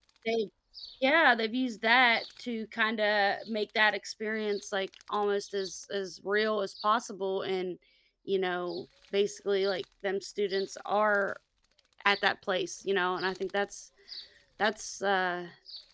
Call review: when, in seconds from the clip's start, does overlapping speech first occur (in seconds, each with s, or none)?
none